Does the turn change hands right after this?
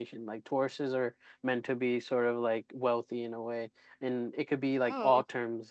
No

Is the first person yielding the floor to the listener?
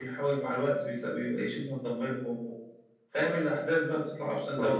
Yes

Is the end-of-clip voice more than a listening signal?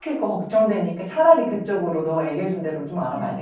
Yes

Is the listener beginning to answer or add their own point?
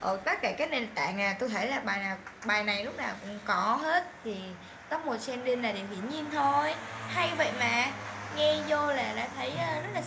No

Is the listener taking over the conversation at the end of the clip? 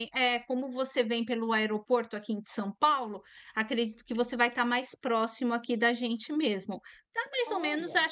No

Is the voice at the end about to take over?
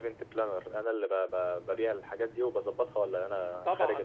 Yes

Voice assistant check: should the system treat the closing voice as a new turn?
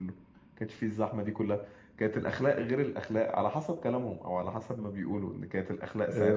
Yes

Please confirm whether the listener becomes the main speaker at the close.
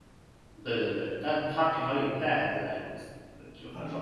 No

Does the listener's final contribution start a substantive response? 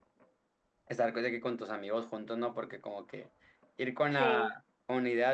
No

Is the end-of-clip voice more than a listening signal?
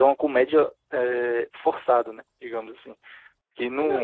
Yes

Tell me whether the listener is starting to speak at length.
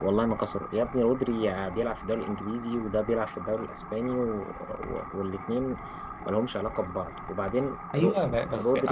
Yes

